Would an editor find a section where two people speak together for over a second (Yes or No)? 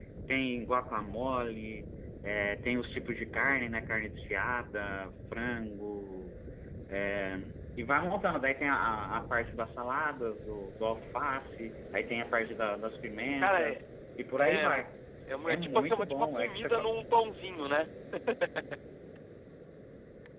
Yes